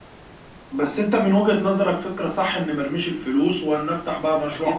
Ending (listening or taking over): taking over